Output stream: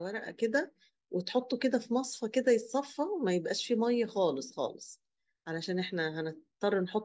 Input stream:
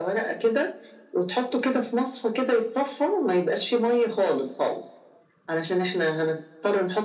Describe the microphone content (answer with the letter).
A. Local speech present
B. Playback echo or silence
B